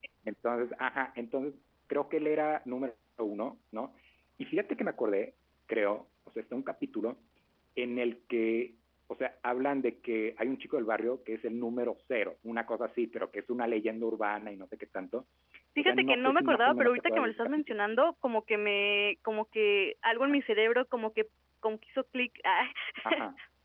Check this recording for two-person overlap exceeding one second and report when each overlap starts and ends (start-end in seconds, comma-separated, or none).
15.8-17.8